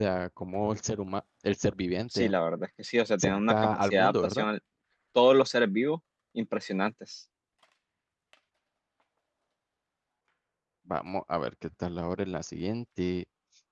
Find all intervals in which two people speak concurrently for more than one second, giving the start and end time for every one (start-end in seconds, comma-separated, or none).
3.2-4.5